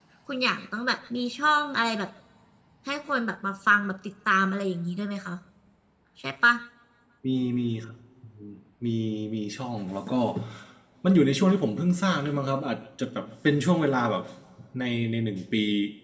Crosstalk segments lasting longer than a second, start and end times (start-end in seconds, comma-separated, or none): none